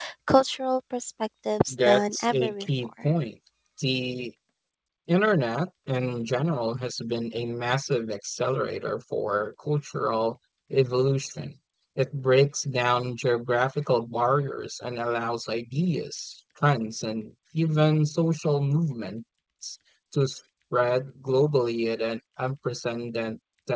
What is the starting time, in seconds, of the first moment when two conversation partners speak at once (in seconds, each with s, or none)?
1.7 s